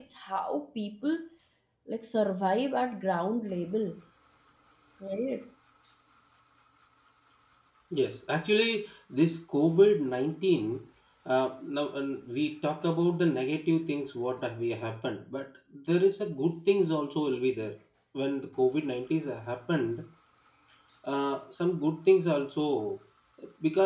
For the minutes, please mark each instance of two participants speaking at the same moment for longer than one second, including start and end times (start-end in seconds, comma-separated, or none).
none